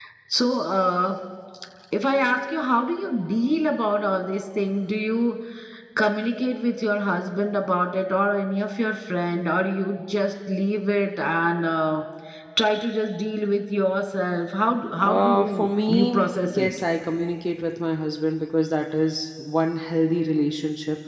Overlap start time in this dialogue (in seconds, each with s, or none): 15.0 s